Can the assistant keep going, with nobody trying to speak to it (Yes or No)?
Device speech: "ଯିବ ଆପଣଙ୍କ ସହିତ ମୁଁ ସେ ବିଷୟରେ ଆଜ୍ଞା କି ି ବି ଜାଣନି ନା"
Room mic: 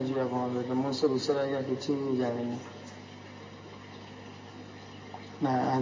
Yes